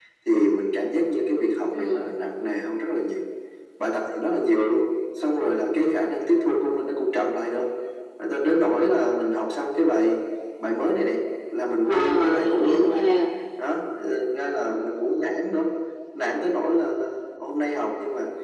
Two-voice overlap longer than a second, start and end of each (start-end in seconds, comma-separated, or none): 11.8-13.0